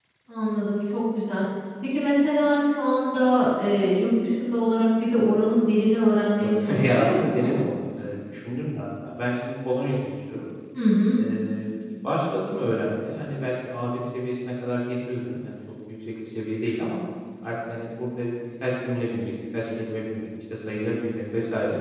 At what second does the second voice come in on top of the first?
6.4 s

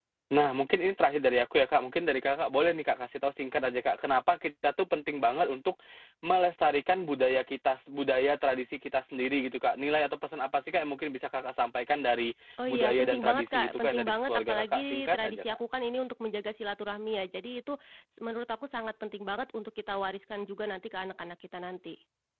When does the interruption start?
12.6 s

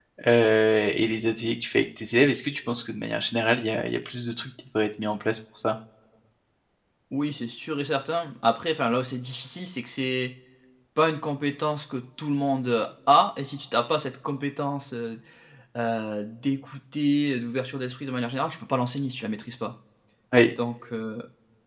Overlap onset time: none

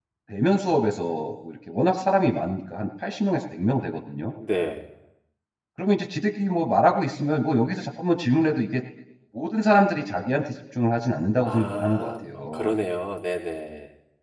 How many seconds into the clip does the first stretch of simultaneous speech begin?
11.4 s

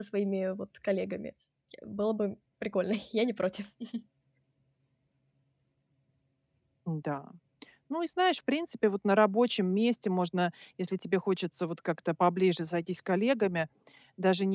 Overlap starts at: none

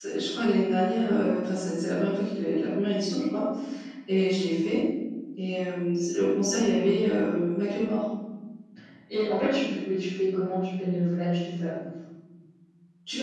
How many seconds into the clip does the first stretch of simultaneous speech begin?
none

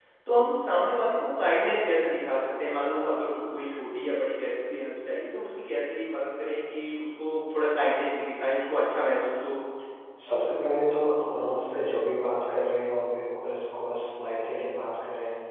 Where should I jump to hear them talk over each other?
none

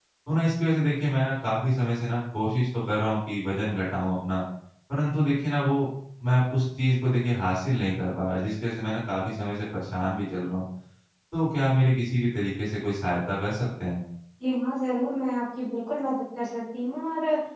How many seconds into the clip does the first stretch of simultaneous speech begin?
none

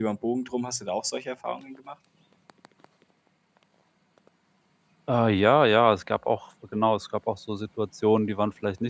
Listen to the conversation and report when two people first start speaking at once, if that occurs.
none

